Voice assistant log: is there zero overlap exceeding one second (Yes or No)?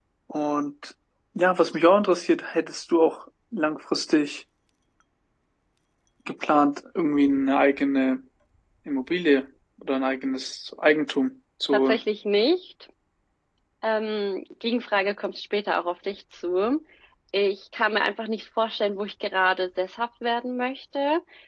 Yes